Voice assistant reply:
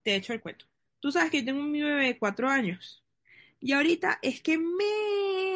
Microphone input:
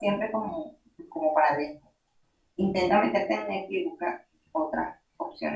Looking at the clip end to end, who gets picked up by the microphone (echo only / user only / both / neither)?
user only